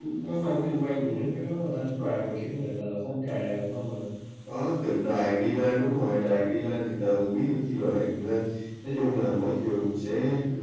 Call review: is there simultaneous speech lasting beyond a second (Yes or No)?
No